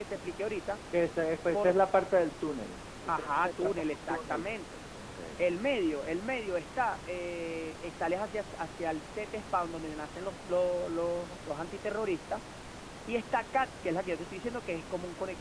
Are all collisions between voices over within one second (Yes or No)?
No